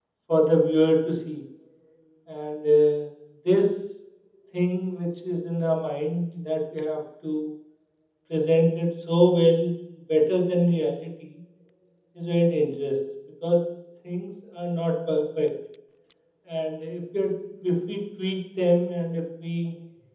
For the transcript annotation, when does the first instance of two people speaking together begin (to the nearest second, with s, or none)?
none